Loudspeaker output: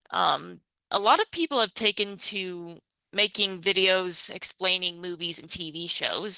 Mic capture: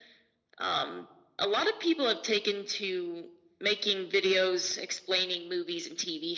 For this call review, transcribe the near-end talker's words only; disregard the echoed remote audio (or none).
none